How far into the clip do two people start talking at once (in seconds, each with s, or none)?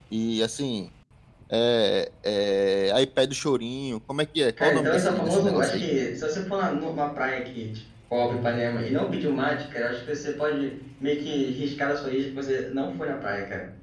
4.6 s